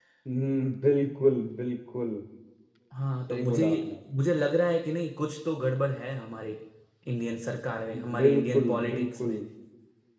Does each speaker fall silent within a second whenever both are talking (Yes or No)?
No